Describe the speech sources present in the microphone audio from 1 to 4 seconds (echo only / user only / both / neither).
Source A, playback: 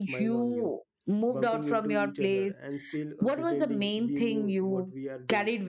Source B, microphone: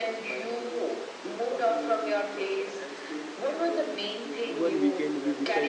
echo only